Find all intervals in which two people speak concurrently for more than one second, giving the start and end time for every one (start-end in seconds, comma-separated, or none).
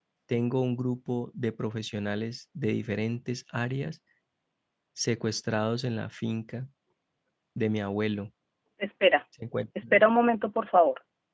none